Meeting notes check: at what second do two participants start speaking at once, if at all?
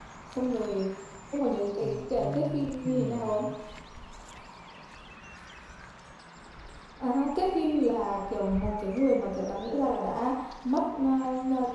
1.8 s

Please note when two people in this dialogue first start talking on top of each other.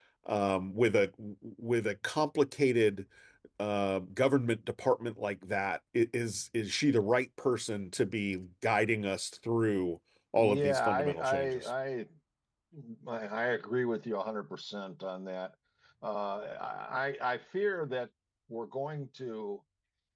10.4 s

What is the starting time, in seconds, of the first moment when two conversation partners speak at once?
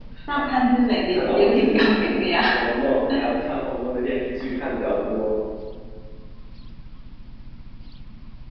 1.1 s

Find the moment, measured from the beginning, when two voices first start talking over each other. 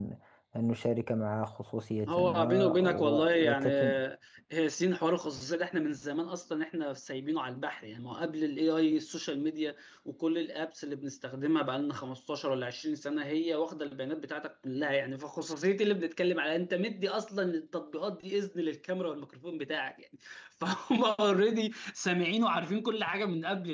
2.1 s

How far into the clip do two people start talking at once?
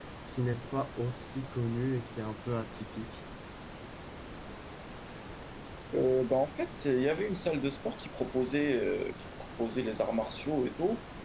none

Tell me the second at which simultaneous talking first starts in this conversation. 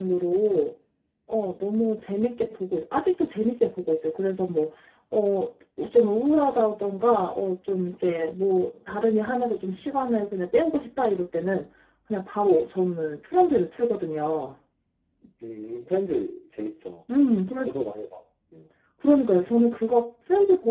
none

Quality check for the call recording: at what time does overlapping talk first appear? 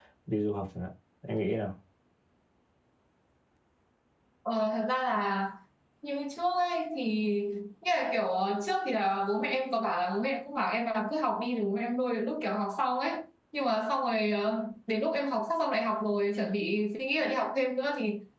none

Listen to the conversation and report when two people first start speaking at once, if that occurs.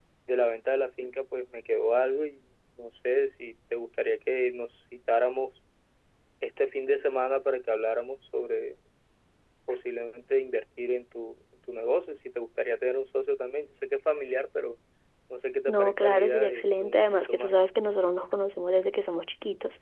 15.7 s

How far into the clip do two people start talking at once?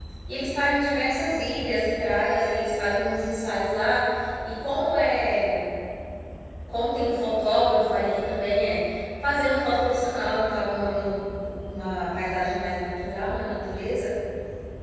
none

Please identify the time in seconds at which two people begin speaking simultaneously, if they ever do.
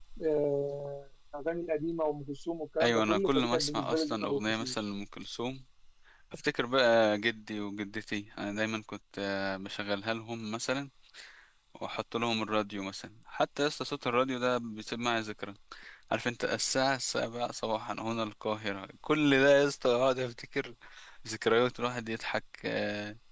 2.8 s

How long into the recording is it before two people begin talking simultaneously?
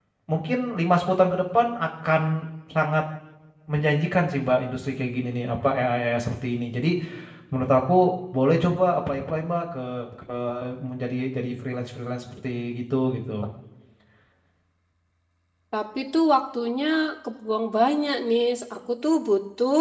none

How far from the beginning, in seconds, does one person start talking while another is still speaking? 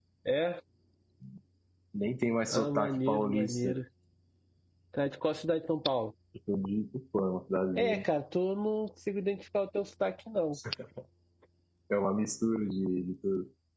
2.5 s

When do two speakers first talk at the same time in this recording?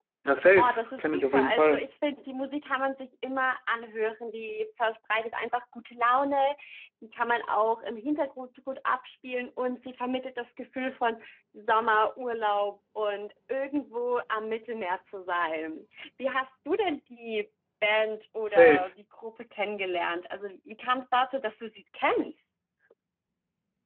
0.6 s

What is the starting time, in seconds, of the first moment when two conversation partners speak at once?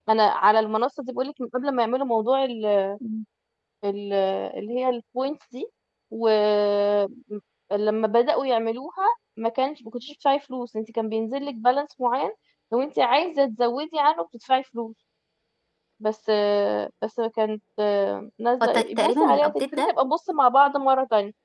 18.6 s

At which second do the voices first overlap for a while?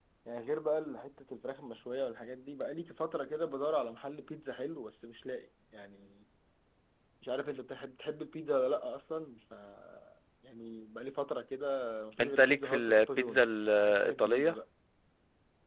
12.2 s

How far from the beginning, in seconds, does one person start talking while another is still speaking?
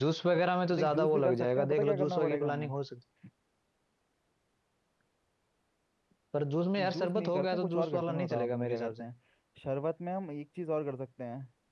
0.8 s

